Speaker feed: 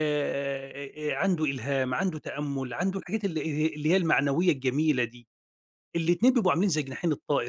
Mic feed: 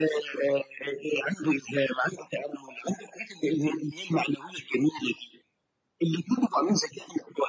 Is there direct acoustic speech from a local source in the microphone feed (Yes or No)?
No